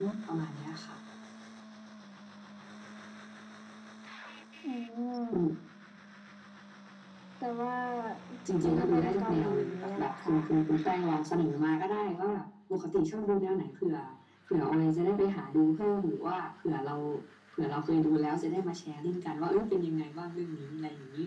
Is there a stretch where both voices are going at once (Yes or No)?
Yes